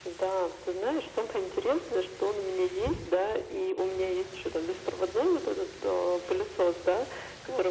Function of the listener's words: listening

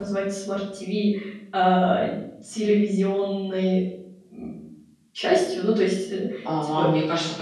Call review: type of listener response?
taking over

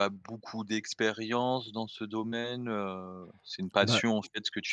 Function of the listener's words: listening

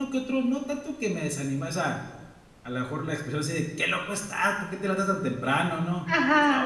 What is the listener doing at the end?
listening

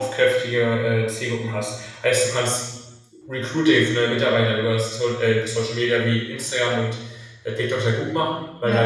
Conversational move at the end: listening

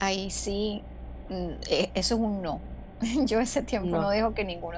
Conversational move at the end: listening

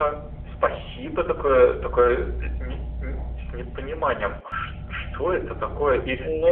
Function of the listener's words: listening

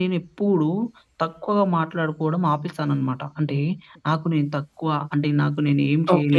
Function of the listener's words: taking over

